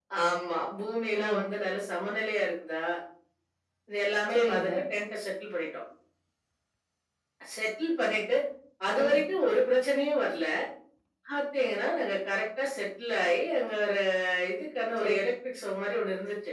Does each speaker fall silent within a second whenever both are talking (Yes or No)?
Yes